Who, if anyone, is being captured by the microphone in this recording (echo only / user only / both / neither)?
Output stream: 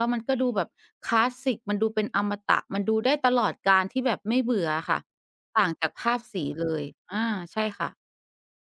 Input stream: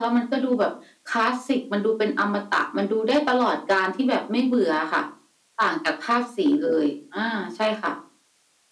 echo only